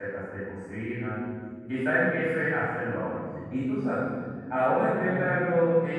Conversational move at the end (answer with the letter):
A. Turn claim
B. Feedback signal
B